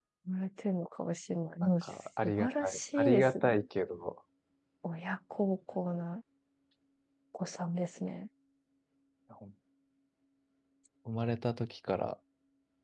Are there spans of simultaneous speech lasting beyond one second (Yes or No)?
Yes